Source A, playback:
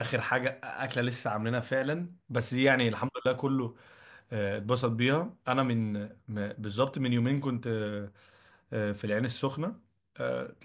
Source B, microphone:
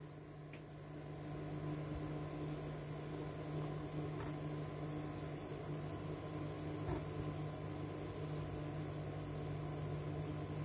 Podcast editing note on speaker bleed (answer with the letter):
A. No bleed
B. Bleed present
A